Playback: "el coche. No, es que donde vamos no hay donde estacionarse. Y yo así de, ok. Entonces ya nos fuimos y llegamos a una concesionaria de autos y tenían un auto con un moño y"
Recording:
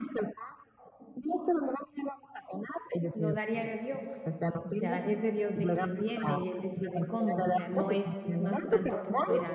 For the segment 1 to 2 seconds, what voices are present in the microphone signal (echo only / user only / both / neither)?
echo only